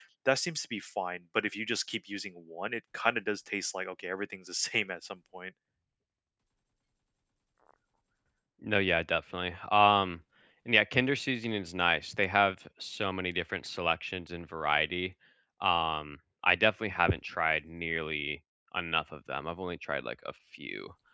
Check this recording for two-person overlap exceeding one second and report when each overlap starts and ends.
none

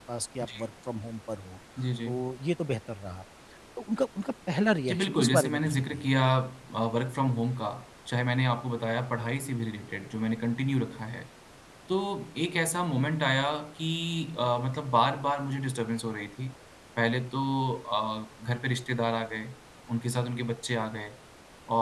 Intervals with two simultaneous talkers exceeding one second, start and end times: 4.9-6.1

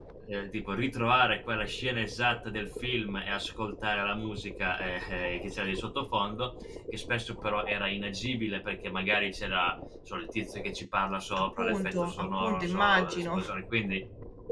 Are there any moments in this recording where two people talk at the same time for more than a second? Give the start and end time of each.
11.4-13.4

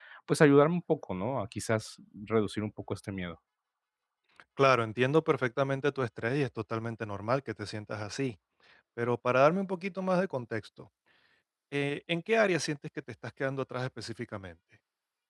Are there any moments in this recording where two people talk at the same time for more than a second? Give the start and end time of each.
none

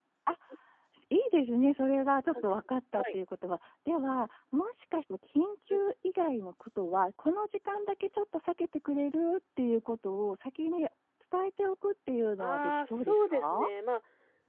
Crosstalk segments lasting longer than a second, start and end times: 12.4-13.7

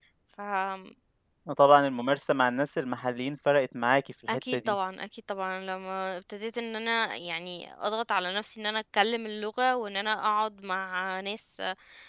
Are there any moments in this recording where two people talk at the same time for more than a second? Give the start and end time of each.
none

